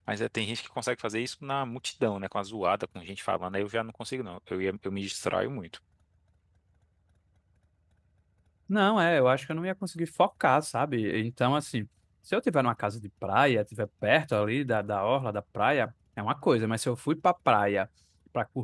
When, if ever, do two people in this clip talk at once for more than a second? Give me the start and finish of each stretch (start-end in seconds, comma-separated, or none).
none